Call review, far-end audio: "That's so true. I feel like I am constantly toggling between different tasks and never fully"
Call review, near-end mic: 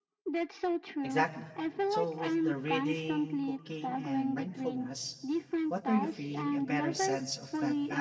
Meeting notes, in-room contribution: present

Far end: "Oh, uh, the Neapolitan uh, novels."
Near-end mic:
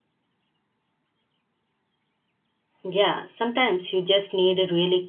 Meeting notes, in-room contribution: present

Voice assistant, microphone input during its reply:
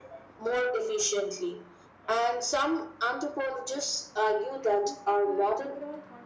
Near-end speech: present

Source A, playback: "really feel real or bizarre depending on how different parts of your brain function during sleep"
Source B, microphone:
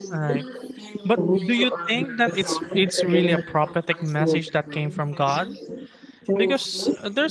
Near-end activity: present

